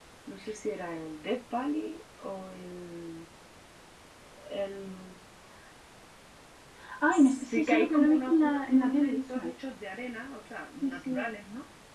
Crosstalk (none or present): present